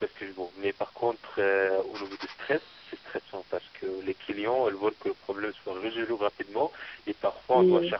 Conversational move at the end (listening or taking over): listening